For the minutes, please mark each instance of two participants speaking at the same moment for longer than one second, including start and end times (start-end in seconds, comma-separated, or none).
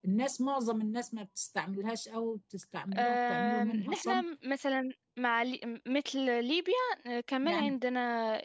3.0-4.2